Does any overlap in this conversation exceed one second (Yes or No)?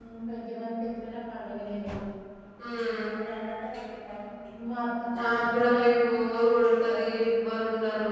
Yes